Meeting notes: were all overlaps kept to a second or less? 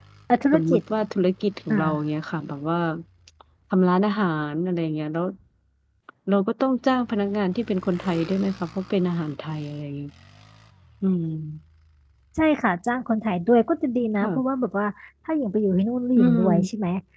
Yes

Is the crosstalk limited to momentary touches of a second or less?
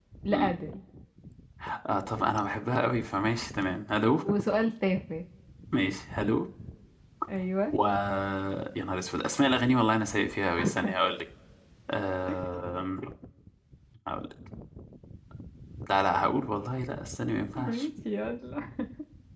Yes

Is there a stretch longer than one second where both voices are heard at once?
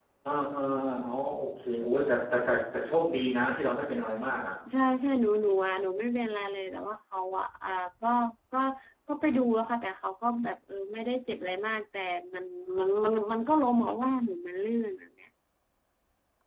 No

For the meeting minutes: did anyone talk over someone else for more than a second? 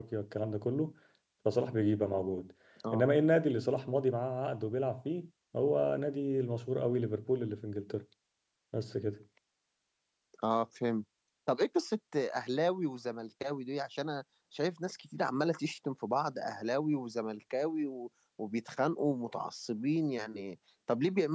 No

